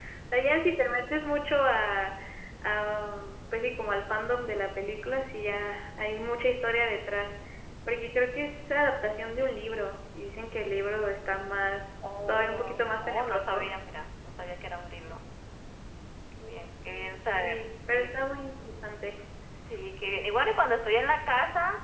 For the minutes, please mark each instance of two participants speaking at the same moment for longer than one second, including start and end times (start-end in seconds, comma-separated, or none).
12.3-13.7